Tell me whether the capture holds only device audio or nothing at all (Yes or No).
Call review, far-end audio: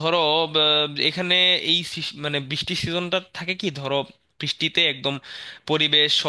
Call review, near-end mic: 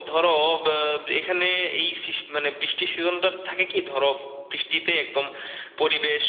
Yes